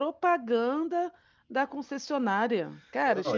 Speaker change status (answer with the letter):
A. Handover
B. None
A